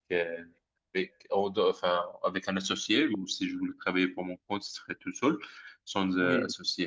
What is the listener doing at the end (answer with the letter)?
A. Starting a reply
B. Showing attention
B